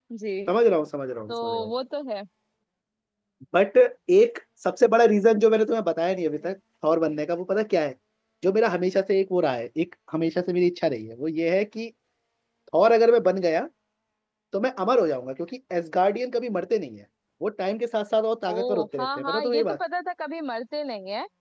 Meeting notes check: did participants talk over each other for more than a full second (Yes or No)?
Yes